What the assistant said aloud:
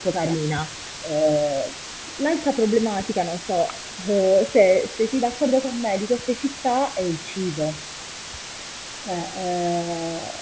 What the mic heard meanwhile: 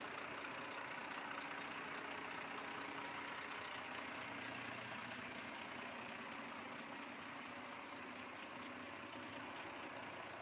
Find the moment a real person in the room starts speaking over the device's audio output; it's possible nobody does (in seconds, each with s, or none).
none